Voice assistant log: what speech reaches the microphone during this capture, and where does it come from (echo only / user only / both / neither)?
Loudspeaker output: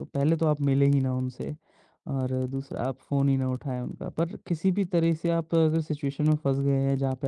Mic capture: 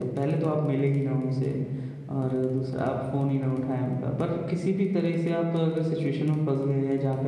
echo only